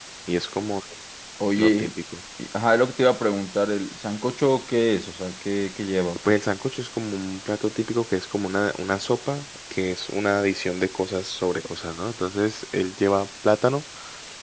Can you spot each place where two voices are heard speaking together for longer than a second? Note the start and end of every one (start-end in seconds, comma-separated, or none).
none